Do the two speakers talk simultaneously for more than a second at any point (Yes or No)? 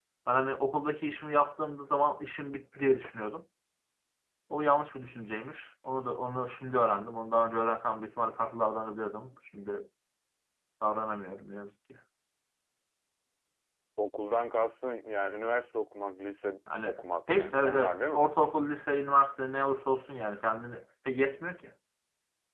Yes